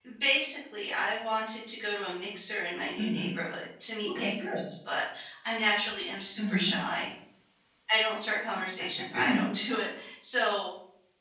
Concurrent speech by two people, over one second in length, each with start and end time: none

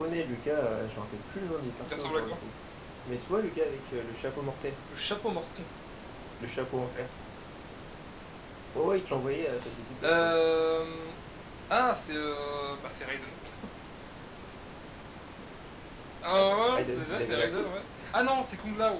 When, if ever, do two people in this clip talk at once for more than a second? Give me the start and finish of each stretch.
16.4-17.7

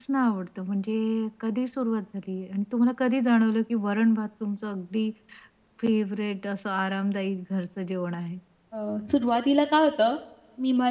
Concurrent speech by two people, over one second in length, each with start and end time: none

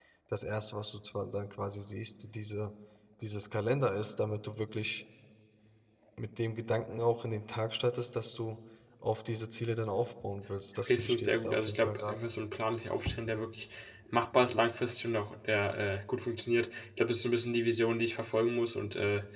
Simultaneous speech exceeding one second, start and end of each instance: 10.8-12.3

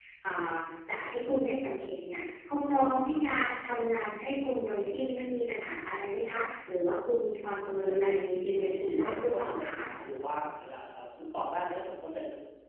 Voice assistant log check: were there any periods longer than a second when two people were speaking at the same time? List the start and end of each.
7.8-9.8

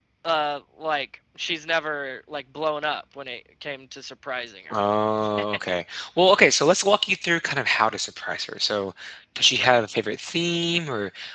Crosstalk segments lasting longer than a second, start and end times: none

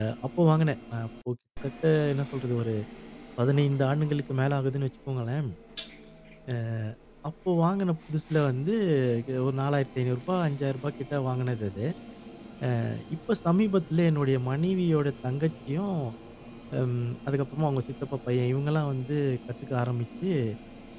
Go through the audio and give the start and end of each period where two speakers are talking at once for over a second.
none

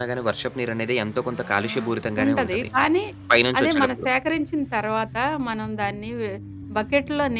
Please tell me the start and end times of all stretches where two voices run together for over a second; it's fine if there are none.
none

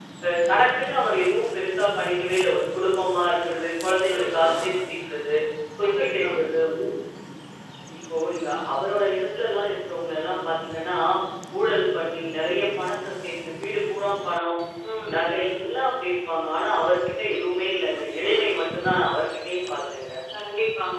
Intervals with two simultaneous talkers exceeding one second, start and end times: none

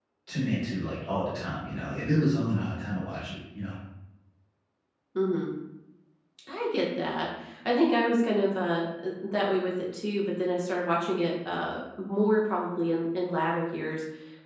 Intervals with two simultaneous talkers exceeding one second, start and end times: none

